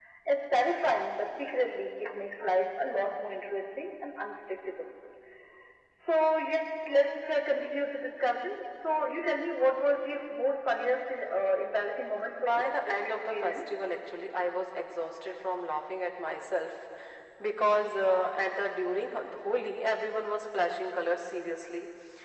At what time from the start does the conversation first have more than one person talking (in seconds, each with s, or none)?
12.4 s